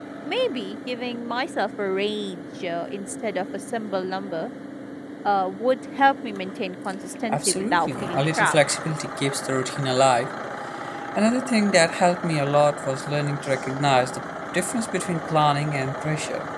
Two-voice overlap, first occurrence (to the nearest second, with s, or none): 7 s